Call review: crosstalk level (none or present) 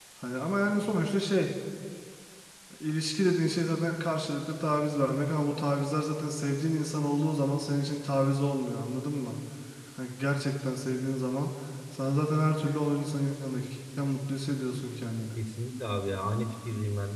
none